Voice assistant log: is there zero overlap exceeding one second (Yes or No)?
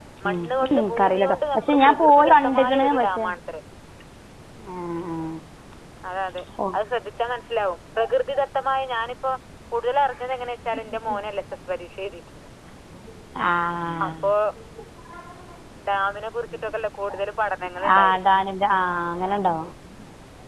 No